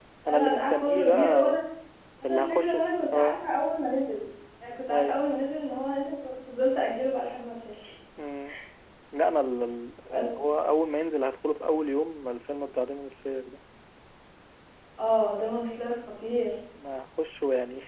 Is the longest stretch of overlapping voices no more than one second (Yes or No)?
No